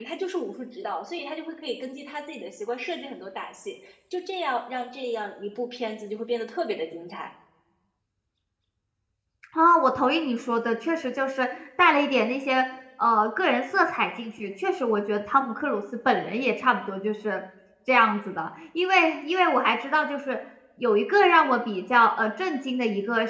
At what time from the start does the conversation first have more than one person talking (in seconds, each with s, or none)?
none